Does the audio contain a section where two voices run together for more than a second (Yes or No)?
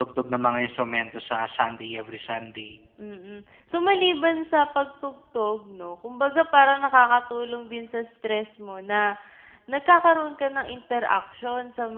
No